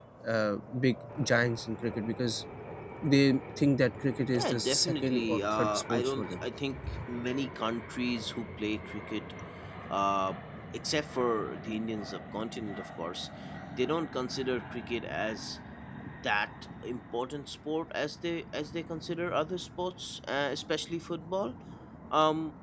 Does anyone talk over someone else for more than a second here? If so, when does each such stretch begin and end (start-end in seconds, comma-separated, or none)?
4.3-6.4